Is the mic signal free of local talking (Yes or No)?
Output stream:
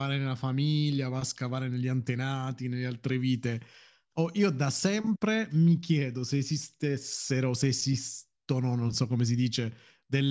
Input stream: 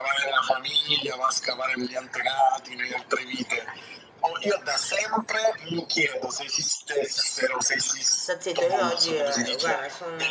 No